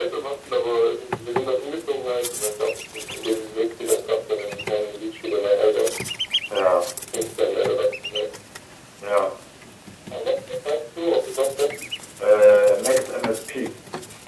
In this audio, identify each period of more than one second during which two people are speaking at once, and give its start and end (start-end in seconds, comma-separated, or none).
none